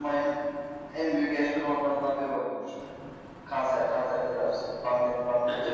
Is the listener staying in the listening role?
No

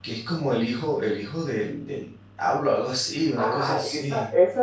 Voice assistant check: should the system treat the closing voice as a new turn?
Yes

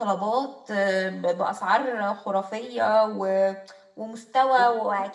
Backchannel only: Yes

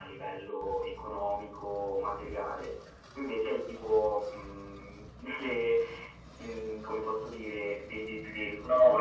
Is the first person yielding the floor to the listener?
Yes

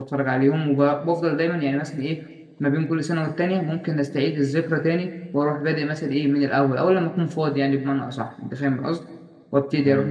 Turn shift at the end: No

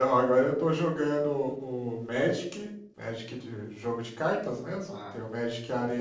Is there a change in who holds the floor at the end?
No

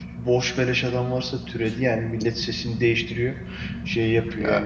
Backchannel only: Yes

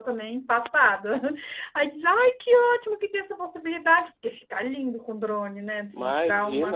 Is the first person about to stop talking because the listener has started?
Yes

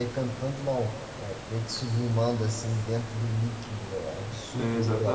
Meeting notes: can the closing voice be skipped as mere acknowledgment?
No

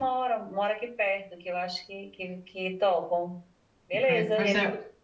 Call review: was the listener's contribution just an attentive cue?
No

